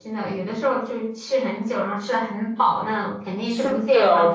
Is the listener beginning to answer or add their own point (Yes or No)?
Yes